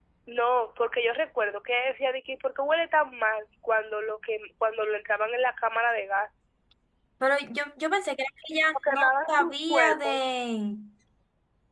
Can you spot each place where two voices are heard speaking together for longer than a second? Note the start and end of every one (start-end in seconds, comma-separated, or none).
8.9-10.2